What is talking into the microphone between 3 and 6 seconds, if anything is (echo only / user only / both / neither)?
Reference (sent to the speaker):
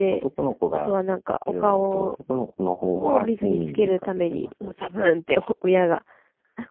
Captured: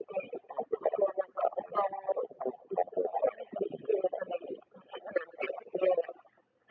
echo only